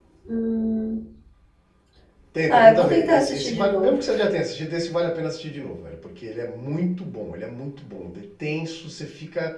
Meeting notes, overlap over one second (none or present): present